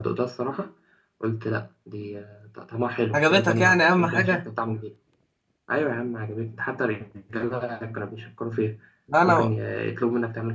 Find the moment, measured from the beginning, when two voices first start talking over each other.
3 s

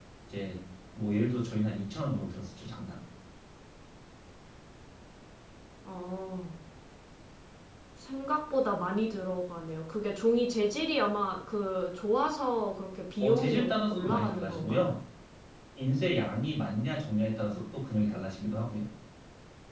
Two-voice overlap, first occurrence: 13 s

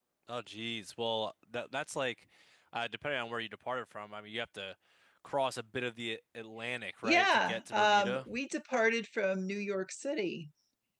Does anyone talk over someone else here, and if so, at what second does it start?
7 s

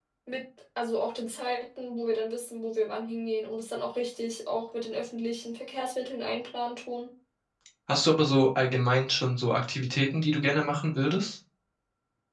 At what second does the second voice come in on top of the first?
none

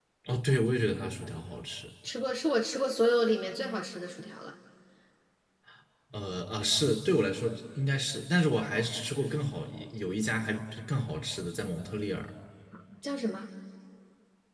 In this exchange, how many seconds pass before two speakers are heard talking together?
none

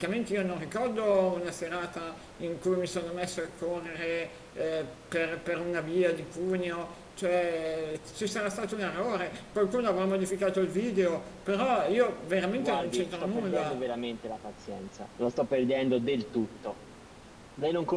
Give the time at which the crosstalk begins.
13 s

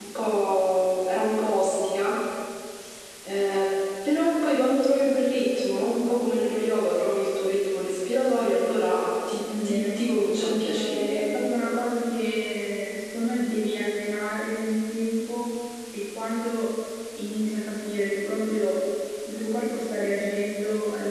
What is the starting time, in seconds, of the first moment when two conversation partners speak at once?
9 s

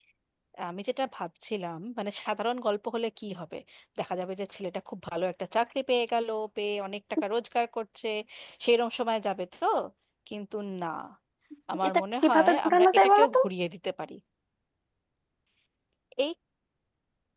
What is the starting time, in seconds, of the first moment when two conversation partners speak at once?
12 s

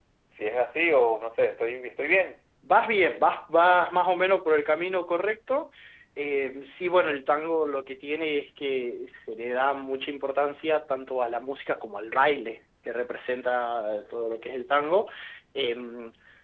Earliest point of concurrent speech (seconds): none

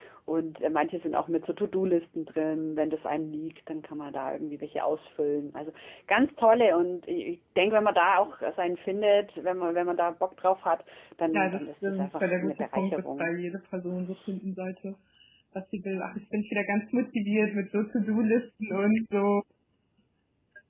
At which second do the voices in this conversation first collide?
11 s

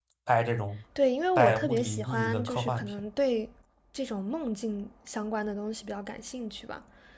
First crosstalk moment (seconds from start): 1 s

